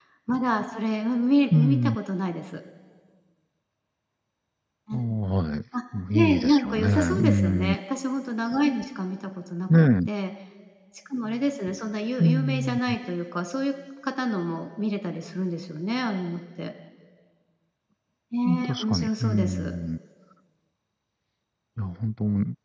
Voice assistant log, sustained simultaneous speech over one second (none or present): present